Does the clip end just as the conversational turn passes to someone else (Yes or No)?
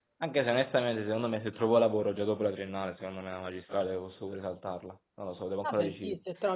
Yes